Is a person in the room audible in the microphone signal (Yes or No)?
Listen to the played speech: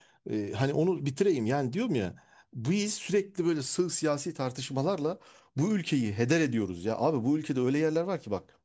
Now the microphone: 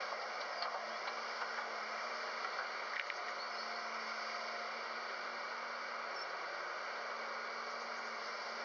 No